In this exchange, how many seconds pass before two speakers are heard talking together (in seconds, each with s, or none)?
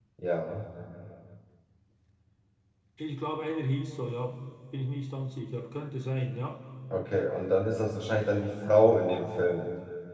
none